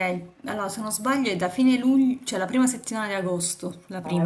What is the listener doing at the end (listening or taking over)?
taking over